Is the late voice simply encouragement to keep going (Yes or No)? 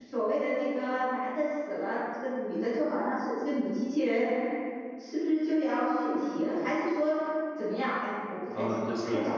No